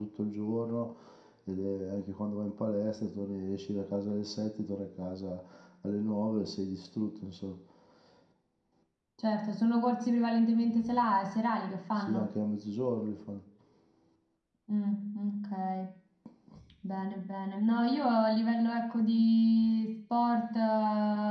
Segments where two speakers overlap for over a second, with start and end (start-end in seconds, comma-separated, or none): none